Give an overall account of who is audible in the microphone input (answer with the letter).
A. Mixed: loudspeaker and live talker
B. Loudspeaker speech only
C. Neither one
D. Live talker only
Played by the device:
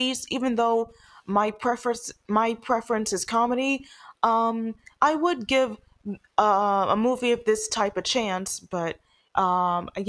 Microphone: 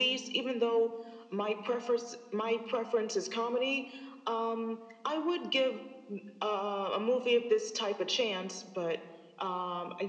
B